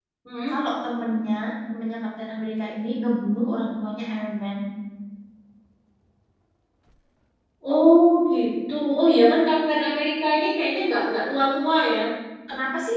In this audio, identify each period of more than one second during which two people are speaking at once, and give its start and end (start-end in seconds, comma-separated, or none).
none